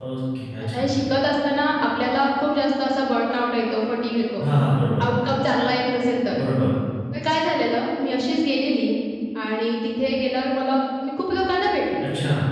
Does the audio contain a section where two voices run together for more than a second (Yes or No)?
No